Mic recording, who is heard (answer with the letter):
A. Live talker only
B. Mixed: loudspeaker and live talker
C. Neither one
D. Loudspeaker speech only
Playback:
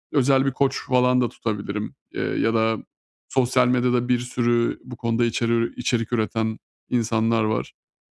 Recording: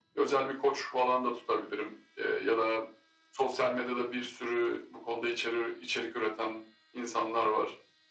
D